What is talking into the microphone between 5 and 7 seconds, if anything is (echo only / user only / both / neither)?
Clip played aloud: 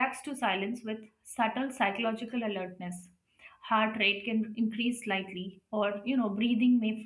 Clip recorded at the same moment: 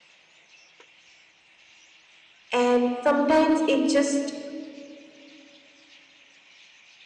neither